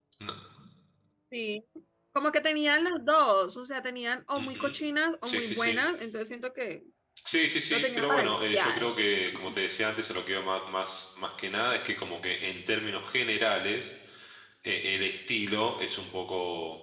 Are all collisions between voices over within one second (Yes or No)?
No